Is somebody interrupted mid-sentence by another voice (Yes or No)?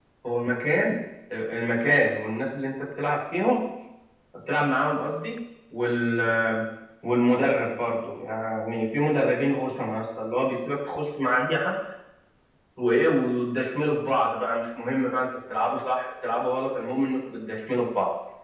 No